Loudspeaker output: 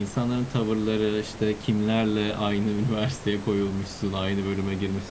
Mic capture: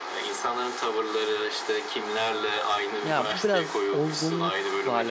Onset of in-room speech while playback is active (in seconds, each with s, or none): 3.0 s